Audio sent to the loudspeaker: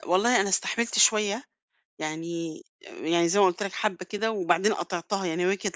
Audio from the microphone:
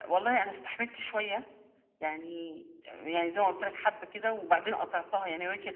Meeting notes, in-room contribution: none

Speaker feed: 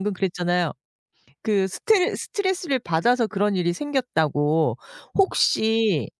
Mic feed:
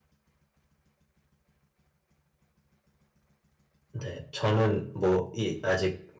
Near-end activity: present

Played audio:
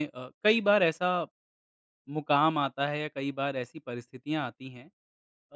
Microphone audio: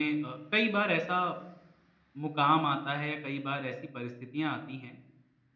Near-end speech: none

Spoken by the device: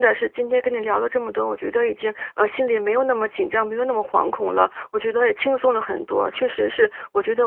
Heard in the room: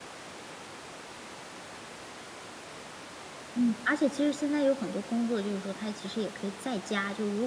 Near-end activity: present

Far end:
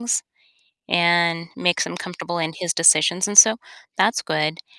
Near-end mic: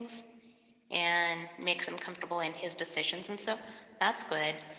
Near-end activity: none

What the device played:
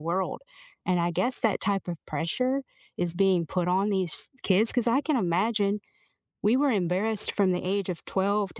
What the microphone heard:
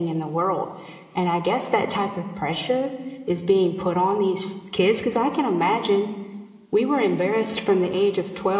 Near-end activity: none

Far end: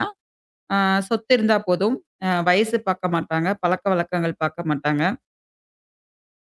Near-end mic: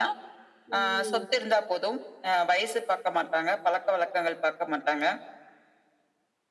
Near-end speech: present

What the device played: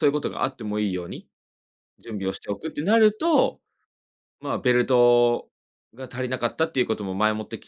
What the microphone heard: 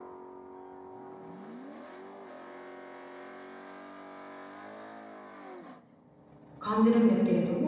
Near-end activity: present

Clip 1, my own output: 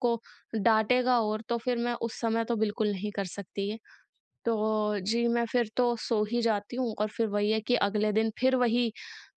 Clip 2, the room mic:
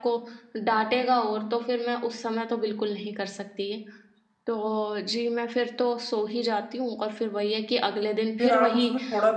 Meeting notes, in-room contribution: present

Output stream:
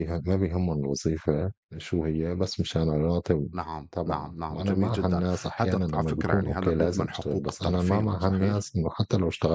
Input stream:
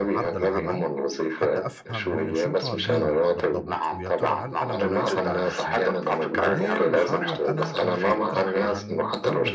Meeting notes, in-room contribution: present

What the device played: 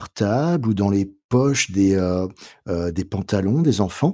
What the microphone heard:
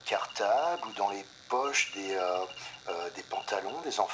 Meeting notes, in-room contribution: none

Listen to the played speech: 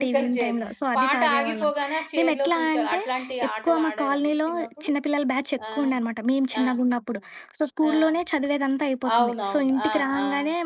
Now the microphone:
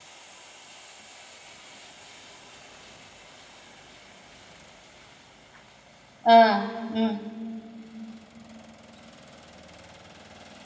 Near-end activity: present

